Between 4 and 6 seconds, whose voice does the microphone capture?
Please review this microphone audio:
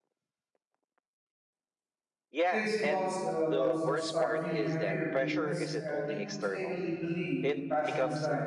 both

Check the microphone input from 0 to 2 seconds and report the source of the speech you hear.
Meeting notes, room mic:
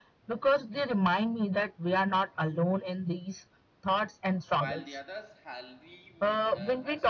echo only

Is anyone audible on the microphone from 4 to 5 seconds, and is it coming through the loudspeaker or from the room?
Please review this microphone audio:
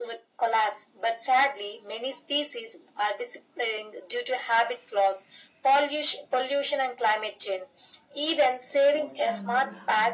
echo only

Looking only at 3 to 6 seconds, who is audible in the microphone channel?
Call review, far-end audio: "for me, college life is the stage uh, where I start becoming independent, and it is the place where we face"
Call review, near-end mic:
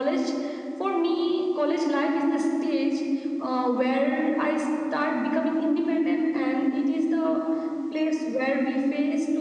echo only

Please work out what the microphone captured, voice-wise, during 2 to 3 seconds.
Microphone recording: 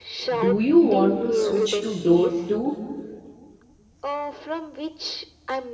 both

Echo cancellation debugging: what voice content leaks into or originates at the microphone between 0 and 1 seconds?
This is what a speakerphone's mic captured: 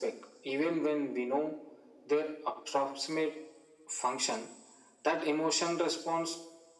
echo only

